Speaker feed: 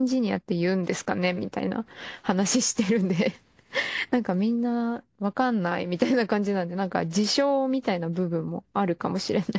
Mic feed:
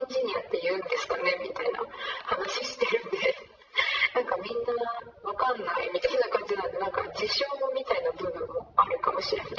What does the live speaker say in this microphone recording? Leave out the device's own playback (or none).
none